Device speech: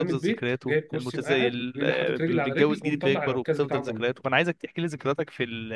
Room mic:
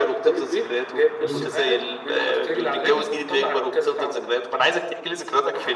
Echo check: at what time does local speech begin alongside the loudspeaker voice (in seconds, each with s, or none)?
1.2 s